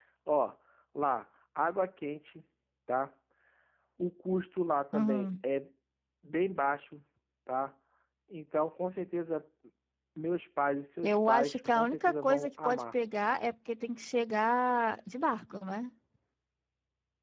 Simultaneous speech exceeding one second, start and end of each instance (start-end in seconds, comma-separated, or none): 11.0-13.0